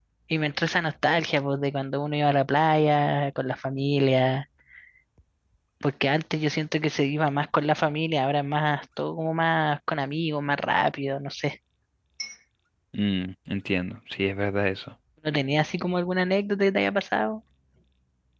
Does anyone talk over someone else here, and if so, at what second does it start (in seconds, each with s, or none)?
none